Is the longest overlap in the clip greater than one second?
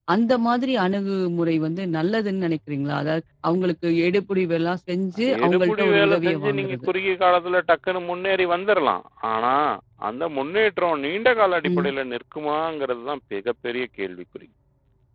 Yes, from 5.4 s

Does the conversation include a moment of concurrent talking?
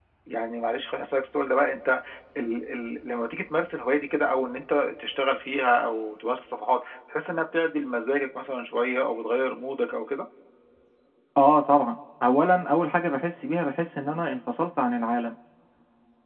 No

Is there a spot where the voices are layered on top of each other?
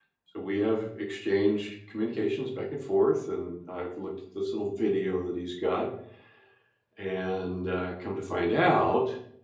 No

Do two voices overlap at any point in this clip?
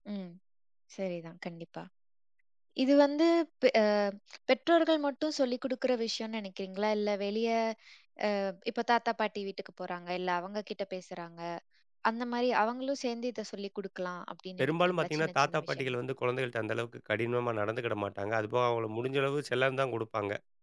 Yes, from 14.6 s

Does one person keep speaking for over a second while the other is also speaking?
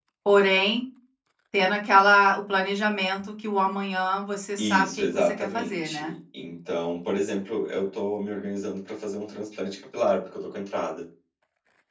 Yes, from 4.6 s

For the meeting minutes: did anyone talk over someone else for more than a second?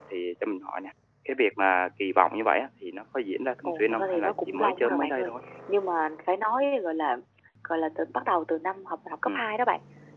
Yes, from 3.6 s

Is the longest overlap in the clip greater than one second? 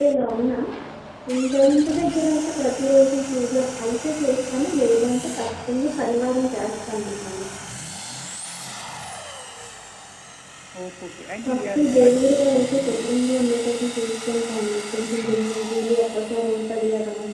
Yes, from 11.4 s

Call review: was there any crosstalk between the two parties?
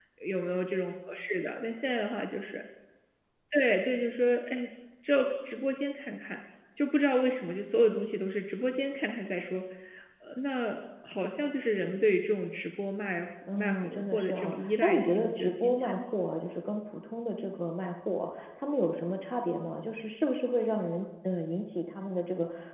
Yes, from 13.5 s

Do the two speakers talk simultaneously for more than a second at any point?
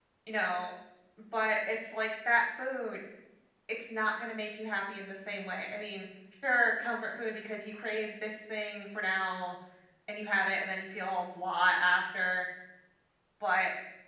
No

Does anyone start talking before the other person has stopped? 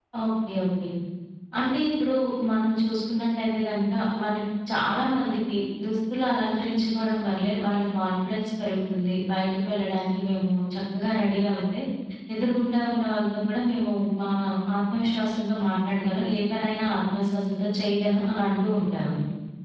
No

